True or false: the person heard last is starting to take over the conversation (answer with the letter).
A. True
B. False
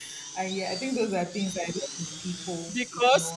A